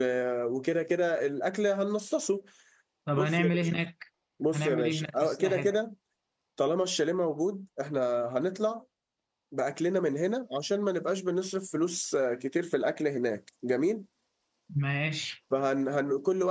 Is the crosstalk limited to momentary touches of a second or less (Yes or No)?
No